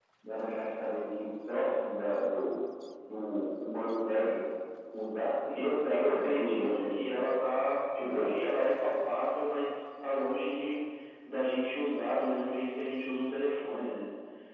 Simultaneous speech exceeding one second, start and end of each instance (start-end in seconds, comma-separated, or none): 5.5-7.2